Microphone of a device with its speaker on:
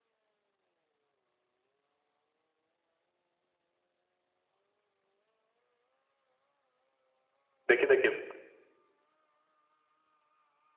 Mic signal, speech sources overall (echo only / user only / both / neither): user only